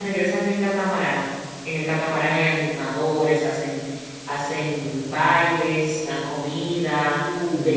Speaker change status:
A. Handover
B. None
B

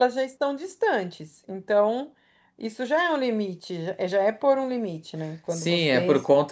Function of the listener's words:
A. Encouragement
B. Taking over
B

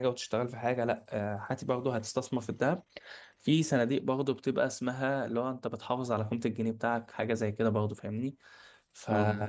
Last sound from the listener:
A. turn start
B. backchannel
B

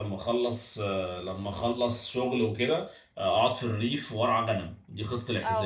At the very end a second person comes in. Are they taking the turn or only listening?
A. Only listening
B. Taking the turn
B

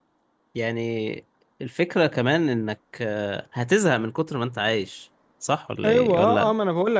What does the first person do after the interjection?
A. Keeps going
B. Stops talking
B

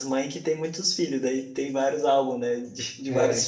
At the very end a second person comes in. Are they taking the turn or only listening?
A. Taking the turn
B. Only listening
B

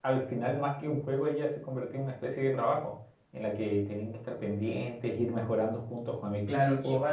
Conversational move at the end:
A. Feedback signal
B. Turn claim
B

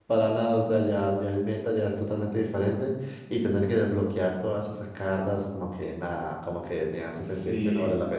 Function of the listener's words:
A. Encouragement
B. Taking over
B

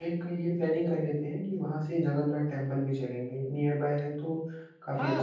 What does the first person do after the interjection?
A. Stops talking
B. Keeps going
A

